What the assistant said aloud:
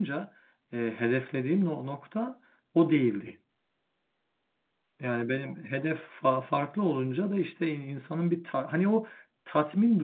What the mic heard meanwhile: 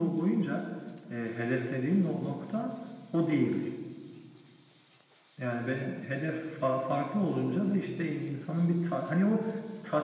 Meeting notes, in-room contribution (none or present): none